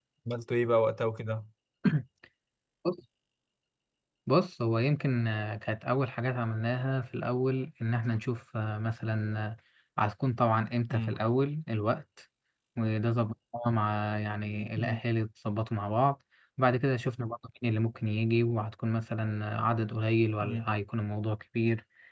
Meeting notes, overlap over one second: none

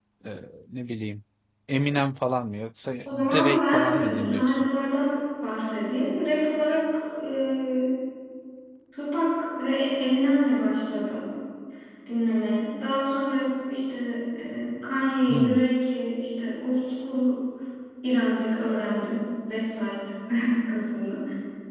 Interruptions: present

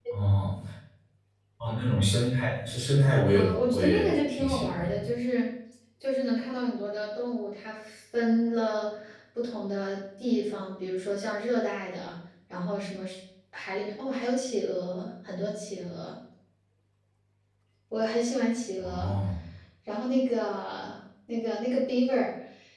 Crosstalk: present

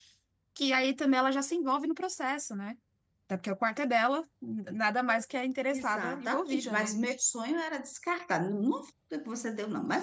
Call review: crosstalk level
present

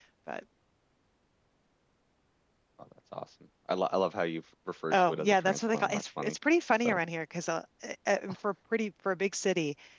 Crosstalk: present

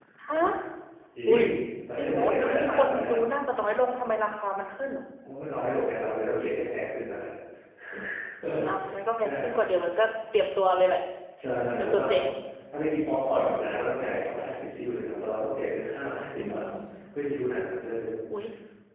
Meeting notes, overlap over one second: present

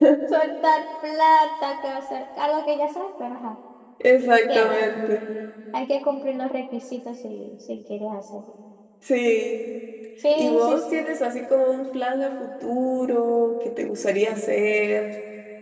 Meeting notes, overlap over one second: none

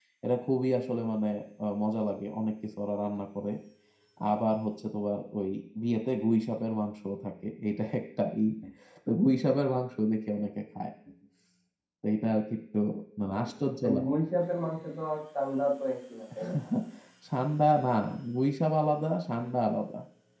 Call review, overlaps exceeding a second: none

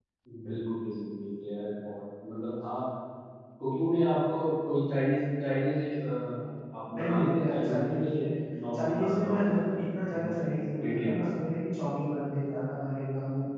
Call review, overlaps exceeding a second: present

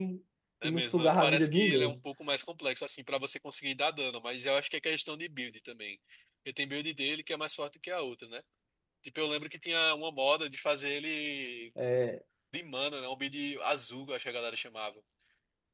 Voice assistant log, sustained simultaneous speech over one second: present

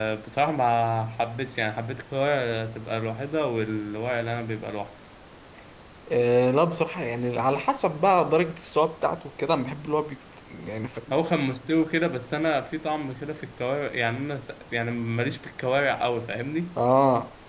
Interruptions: none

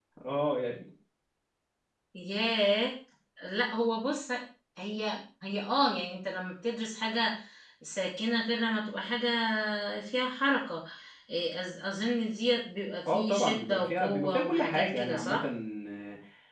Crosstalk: present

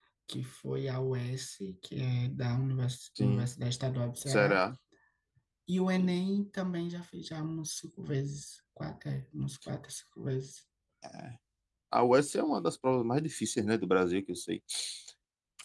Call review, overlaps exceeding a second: none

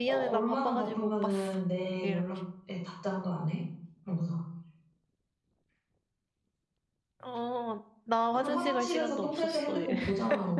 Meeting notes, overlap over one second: present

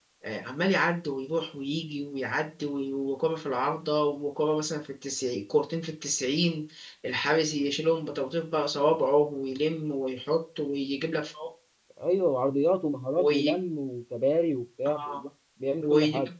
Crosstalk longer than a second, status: none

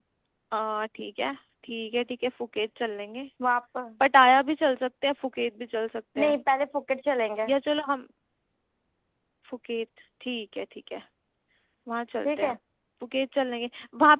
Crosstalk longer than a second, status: none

